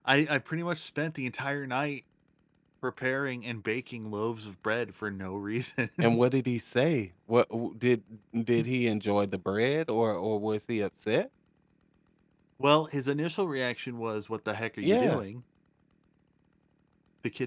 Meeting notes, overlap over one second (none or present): none